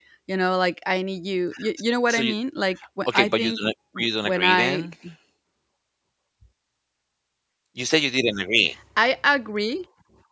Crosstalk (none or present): present